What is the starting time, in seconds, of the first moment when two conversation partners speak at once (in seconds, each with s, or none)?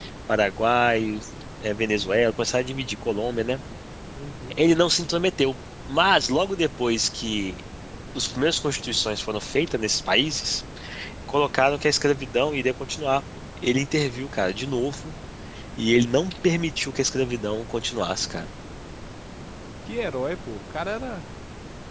none